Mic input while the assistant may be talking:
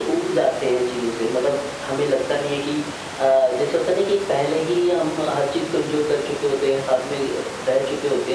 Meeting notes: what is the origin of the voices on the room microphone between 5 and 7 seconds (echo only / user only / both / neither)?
echo only